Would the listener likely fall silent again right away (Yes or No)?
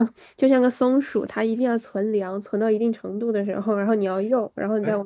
No